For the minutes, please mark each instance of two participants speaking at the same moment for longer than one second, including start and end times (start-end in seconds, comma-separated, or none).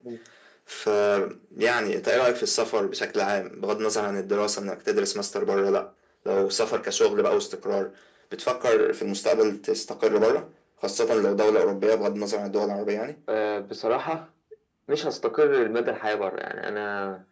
none